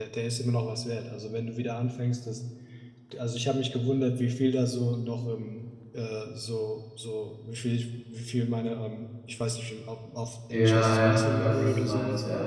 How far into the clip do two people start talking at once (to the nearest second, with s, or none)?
11 s